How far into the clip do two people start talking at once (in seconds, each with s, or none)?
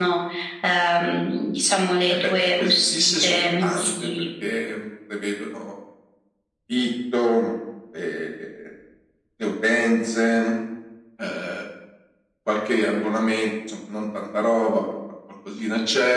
2.1 s